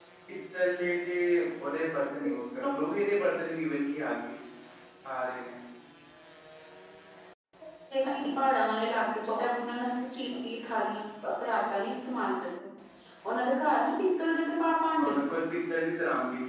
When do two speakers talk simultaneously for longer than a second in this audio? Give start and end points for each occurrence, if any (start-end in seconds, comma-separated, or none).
none